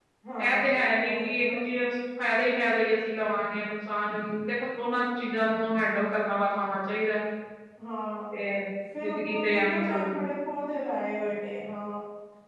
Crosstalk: present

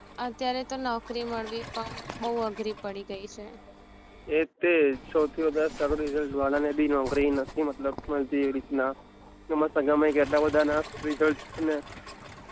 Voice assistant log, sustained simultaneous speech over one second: none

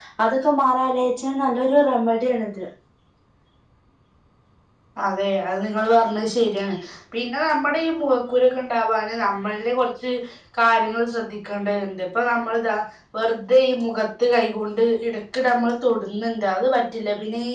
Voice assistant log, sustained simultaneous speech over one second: none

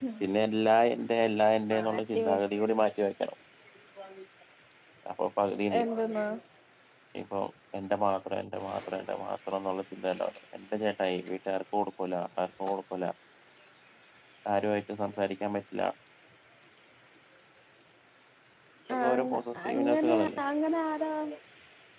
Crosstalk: present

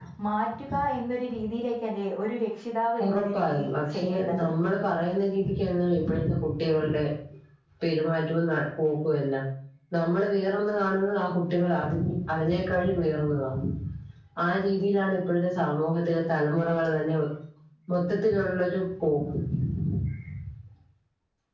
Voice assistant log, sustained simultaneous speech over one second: present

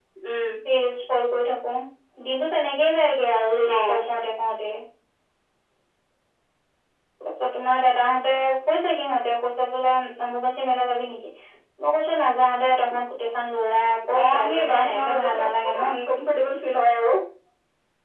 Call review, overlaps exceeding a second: present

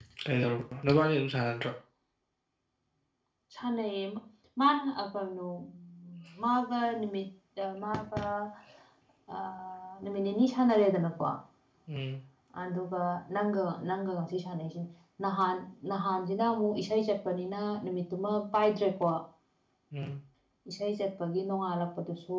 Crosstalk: none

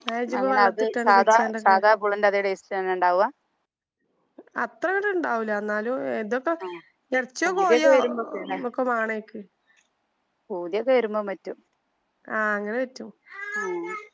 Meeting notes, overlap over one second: present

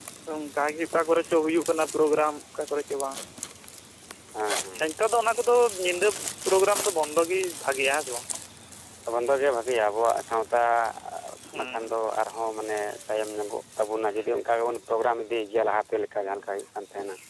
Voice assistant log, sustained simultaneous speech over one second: none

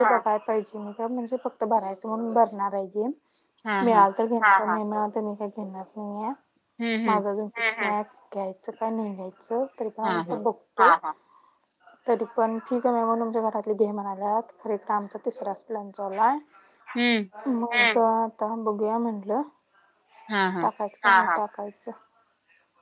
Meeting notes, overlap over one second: none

